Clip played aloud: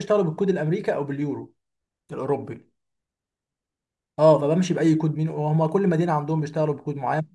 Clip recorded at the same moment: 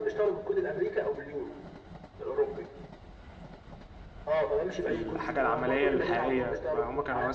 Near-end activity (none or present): present